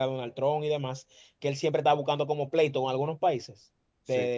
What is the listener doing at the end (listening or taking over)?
listening